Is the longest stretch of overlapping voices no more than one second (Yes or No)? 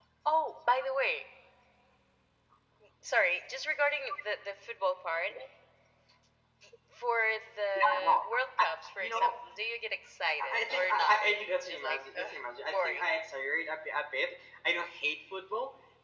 No